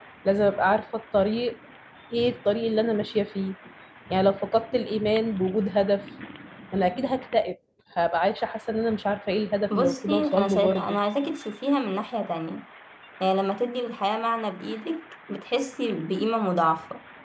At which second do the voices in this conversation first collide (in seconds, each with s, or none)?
9.7 s